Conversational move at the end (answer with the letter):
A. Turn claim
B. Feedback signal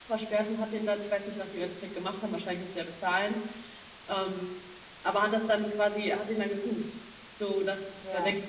B